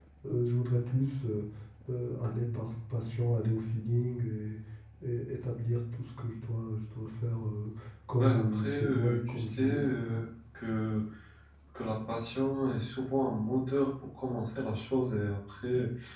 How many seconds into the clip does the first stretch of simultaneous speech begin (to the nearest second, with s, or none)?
8 s